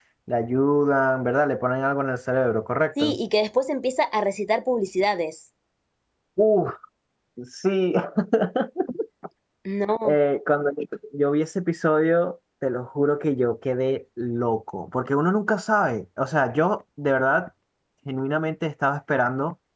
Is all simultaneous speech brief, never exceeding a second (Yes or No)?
Yes